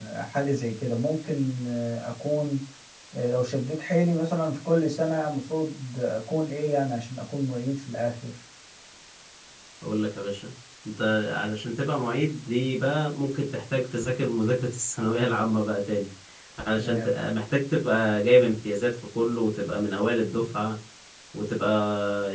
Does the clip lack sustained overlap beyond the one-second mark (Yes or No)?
Yes